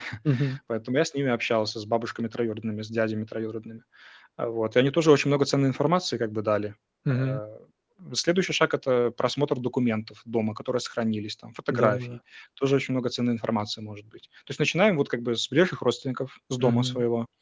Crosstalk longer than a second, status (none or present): none